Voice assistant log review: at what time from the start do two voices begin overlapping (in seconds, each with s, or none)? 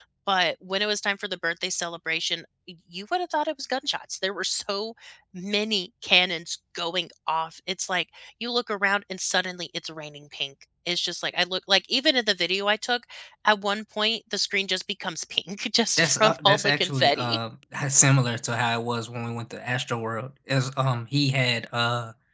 16.0 s